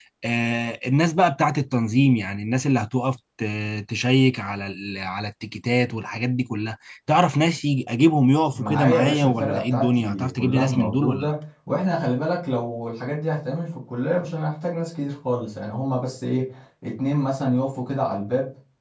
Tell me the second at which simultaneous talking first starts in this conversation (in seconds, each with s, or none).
8.5 s